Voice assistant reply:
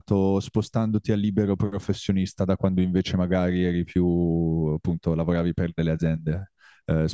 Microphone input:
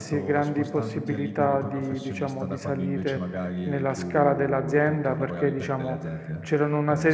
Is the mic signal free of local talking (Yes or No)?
No